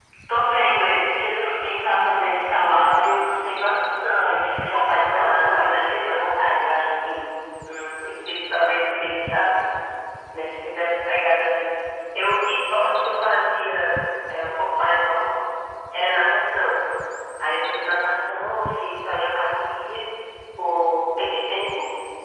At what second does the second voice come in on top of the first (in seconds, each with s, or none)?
4.7 s